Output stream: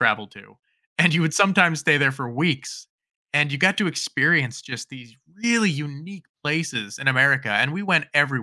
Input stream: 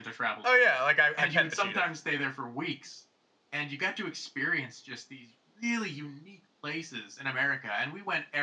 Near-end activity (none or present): present